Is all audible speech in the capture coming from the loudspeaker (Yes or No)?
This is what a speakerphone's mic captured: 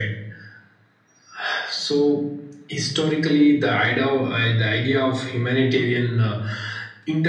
Yes